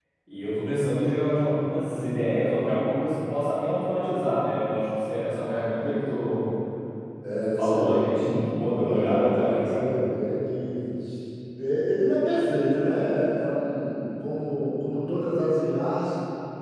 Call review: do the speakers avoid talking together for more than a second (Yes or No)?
No